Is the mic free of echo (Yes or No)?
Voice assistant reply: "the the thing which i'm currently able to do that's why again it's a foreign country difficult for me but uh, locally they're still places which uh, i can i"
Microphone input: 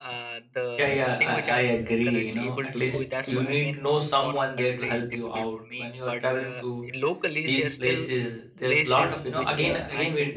No